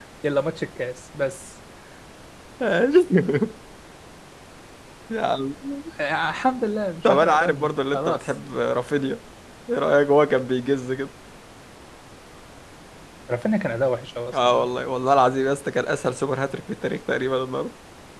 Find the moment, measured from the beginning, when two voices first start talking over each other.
7 s

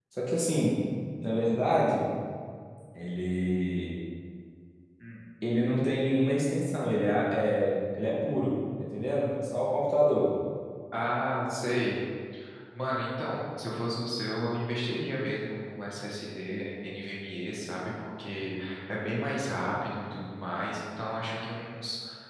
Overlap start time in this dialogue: none

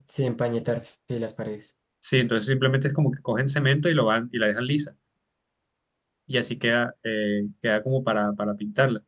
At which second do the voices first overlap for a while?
none

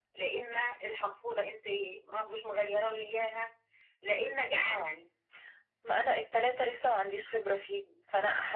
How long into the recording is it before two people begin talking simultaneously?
none

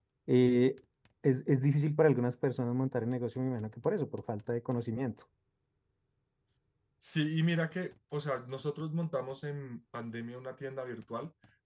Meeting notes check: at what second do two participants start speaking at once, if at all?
none

